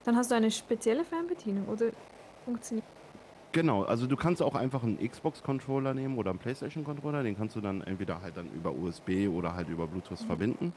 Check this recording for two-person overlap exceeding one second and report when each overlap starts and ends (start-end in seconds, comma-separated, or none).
none